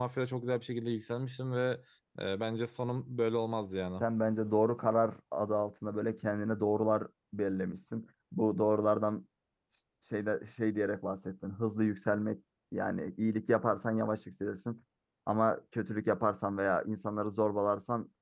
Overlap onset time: none

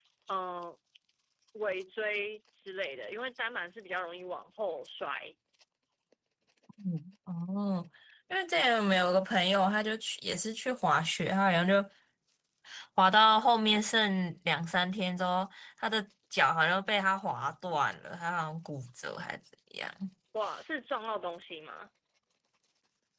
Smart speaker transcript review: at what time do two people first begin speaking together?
none

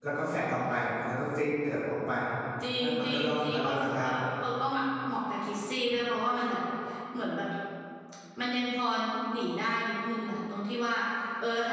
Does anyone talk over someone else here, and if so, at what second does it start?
3 s

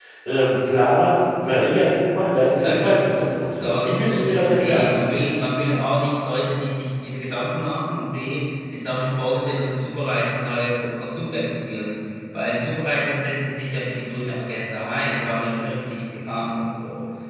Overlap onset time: 3 s

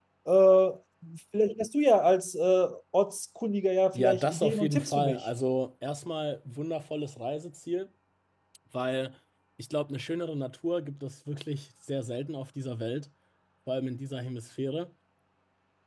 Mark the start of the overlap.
4 s

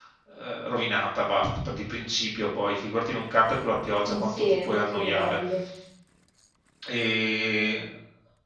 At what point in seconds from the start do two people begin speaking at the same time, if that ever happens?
4 s

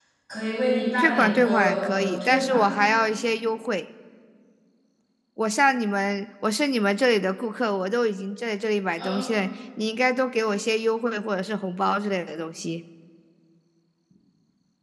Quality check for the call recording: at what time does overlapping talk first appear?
1 s

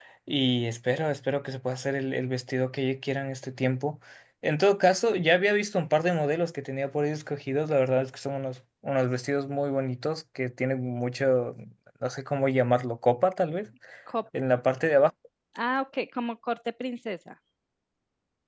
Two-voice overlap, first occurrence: none

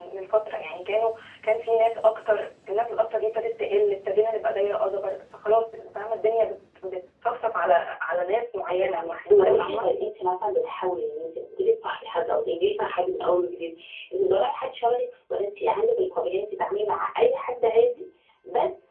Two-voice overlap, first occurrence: 9 s

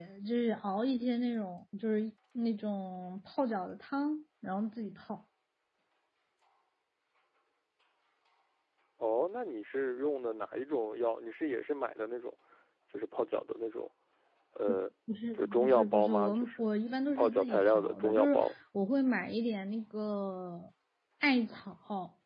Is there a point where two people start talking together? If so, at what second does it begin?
15 s

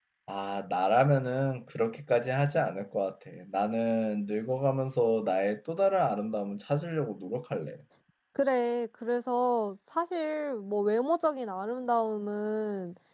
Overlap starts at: none

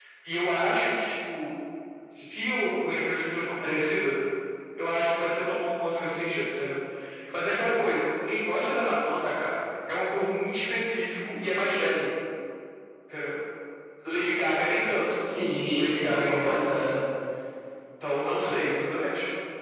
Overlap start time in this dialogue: 16 s

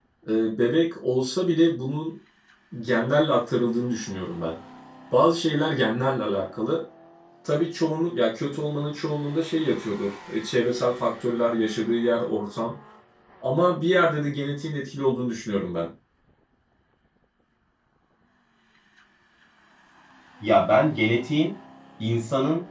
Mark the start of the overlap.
none

